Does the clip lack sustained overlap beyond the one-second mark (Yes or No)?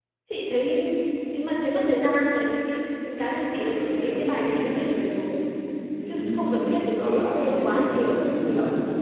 No